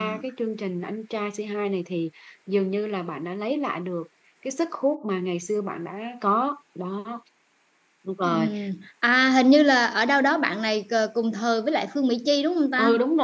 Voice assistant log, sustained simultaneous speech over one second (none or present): none